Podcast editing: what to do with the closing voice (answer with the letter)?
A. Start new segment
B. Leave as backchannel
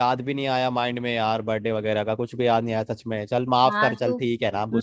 A